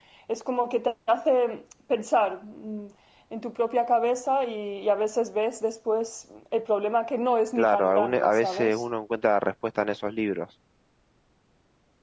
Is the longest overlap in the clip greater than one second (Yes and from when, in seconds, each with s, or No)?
Yes, from 7.6 s